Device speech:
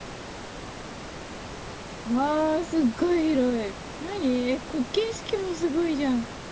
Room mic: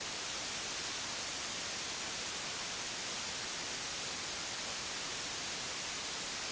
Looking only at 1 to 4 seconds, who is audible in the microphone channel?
neither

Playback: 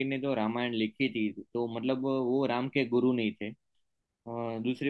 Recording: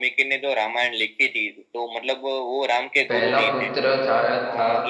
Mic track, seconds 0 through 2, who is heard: echo only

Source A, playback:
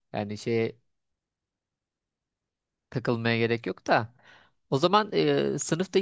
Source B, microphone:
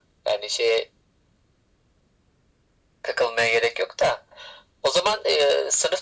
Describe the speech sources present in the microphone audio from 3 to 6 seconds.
echo only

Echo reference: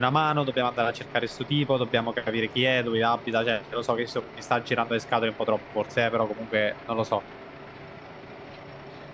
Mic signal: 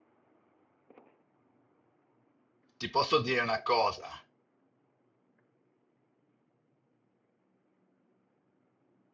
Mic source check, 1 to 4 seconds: user only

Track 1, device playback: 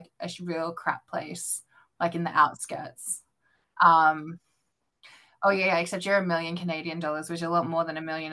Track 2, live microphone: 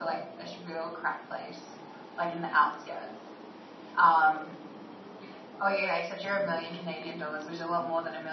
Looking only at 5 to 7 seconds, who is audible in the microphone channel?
echo only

